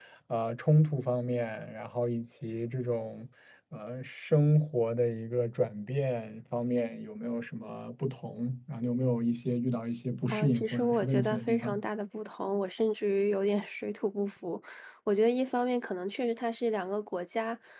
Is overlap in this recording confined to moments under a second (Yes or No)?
No